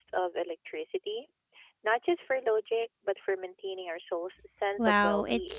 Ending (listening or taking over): taking over